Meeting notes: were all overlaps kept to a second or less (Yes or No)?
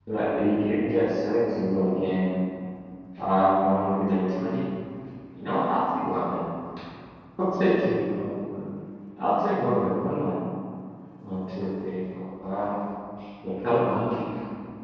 Yes